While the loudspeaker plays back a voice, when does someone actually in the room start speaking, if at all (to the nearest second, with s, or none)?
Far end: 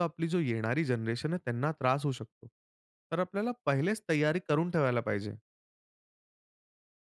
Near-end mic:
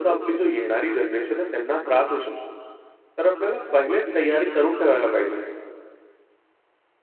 none